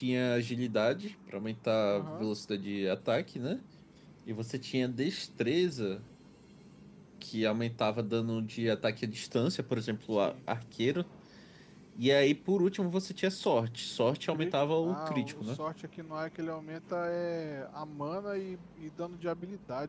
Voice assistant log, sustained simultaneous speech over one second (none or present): present